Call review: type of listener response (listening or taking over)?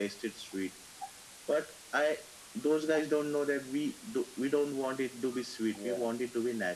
listening